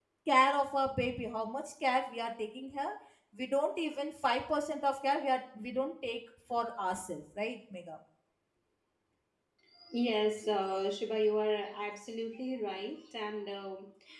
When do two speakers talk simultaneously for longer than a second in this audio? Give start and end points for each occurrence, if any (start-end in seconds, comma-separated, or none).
none